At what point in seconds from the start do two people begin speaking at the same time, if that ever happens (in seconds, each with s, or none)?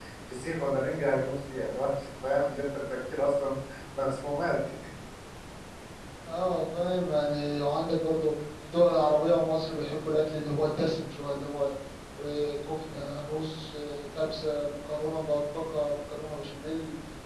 none